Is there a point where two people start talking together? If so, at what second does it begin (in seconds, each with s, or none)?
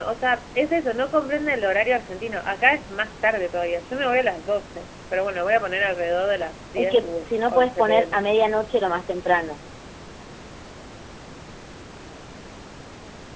6.8 s